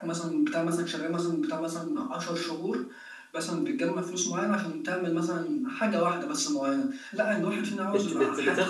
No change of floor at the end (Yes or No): No